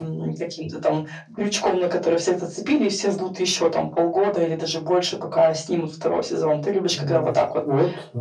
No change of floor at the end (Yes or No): No